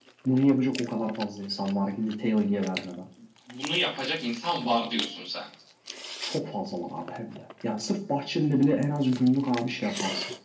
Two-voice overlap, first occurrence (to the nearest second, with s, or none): none